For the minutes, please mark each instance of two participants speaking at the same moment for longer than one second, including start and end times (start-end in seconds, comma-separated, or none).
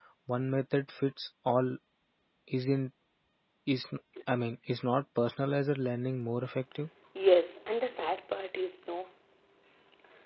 none